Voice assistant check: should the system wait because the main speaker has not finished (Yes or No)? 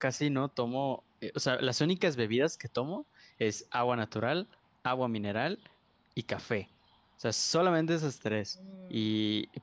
Yes